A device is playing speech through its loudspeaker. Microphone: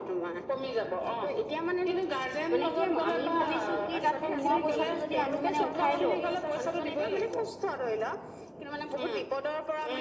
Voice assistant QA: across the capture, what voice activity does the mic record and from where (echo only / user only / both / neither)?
both